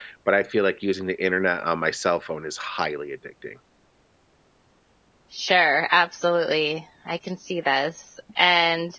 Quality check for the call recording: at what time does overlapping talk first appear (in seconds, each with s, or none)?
none